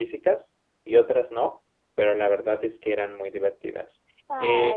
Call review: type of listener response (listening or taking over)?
listening